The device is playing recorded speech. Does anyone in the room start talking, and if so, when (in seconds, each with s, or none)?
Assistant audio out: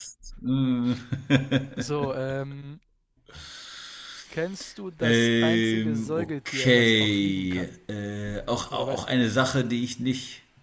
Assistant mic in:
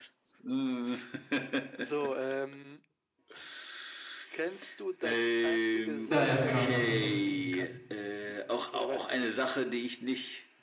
6.1 s